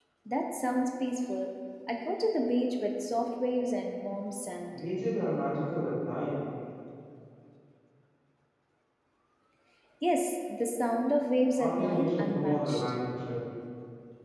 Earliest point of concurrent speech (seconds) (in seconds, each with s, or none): 11.6 s